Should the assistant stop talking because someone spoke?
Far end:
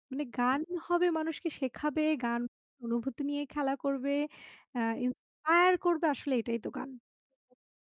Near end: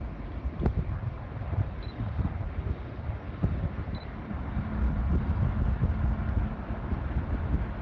No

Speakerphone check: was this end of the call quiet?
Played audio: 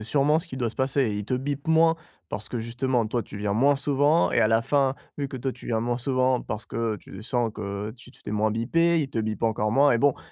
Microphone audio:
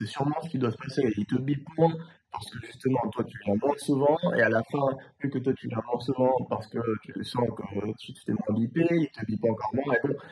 Yes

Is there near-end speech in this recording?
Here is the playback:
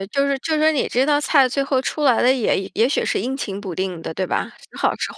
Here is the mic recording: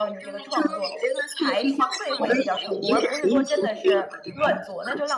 Yes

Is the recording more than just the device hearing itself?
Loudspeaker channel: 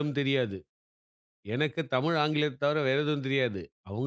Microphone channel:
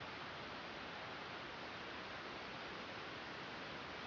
No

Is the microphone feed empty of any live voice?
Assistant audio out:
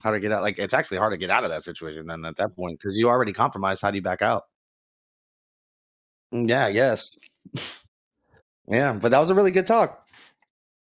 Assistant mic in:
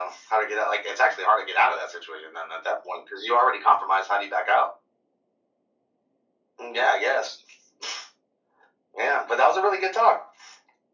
Yes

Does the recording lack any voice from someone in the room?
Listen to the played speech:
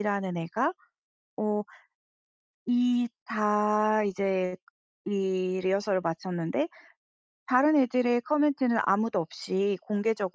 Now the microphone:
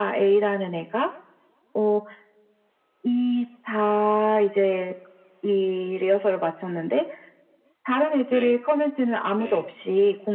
No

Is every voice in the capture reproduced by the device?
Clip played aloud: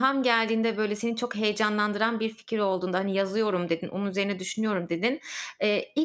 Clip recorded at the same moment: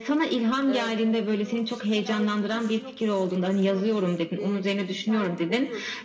No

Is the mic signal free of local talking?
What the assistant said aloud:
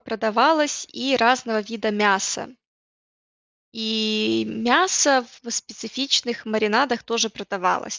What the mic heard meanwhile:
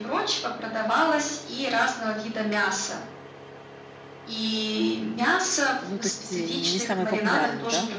No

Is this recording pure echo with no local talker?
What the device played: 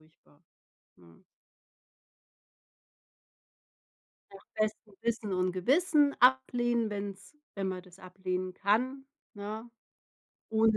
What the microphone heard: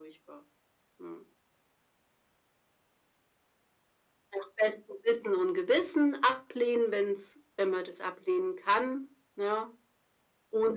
Yes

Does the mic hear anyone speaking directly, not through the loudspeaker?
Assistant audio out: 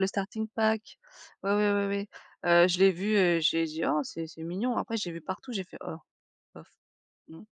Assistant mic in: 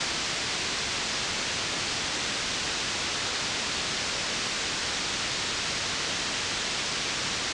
No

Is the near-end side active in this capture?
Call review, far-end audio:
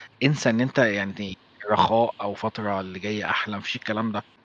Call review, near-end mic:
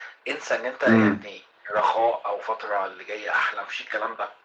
Yes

